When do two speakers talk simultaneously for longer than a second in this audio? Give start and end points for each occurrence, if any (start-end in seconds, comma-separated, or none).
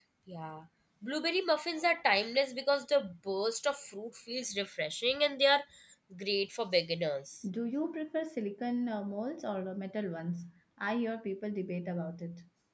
none